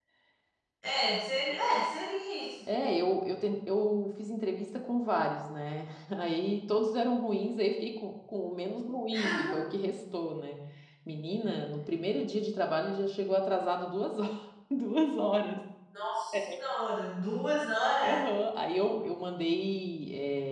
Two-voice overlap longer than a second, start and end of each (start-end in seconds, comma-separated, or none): none